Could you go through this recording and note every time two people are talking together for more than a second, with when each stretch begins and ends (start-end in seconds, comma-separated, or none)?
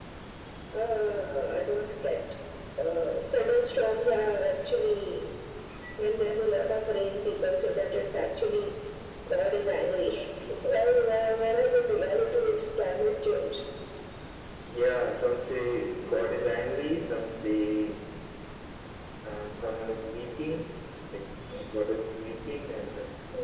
none